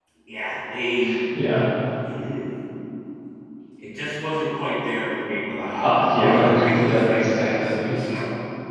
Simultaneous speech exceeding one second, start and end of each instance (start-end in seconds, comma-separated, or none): 5.8-8.0